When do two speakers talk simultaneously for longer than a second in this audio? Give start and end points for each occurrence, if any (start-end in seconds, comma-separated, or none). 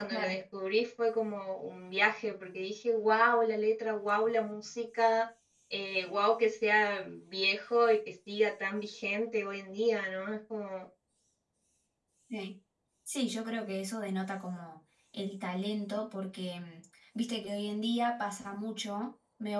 none